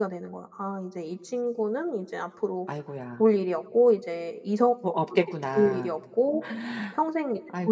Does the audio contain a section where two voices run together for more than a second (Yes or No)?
No